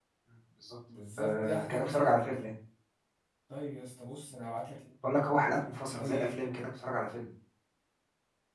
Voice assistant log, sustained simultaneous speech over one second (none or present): present